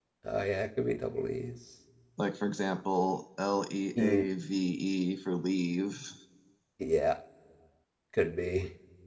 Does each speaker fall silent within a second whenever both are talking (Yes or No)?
Yes